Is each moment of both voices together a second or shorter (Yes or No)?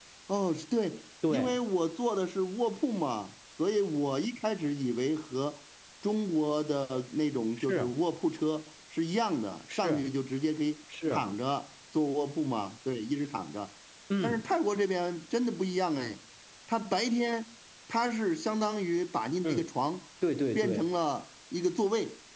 Yes